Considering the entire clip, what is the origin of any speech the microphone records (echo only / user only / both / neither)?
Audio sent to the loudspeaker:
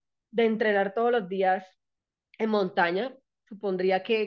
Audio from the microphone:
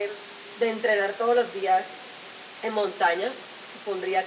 echo only